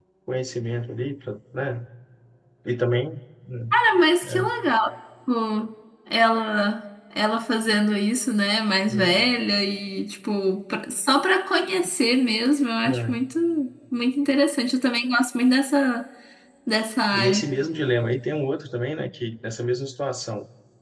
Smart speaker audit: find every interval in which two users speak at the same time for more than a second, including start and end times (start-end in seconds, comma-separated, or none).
none